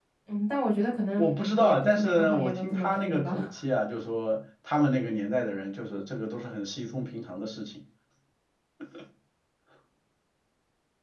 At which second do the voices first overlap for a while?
1 s

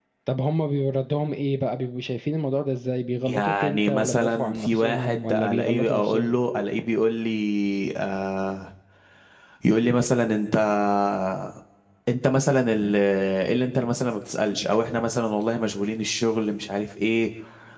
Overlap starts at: 3 s

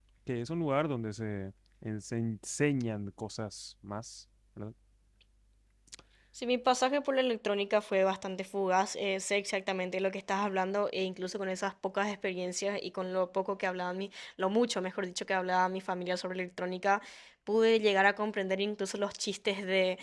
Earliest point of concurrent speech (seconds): none

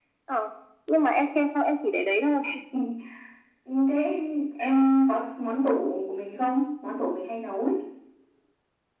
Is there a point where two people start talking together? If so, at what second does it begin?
none

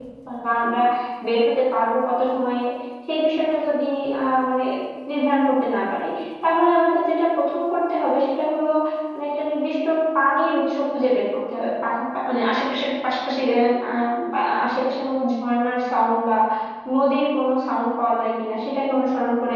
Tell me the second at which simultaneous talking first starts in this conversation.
none

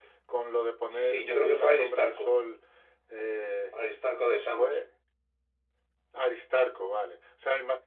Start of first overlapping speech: 1 s

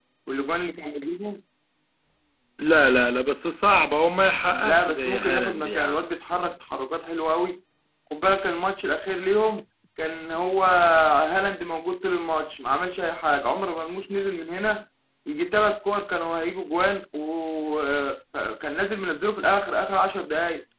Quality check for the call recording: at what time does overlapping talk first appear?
5 s

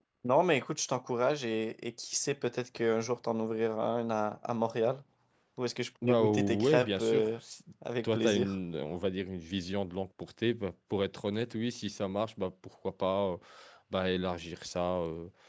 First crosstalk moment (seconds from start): 6 s

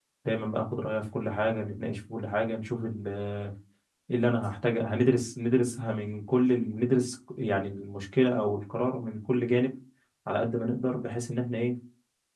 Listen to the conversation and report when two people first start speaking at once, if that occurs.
none

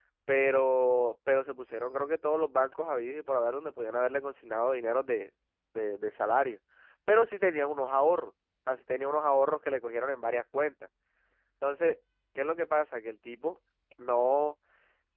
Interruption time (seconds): none

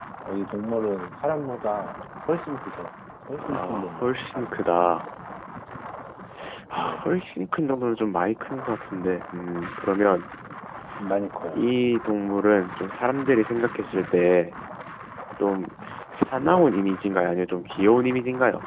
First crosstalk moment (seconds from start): 3 s

